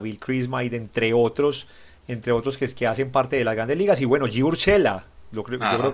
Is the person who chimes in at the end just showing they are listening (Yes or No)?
Yes